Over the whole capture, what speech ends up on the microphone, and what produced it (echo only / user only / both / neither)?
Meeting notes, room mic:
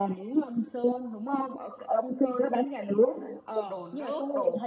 both